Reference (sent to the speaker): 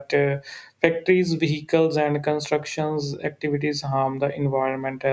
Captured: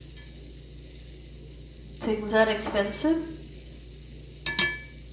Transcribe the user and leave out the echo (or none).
Things are expensive.